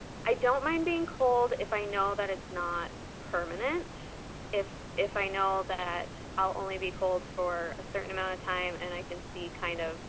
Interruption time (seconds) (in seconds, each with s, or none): none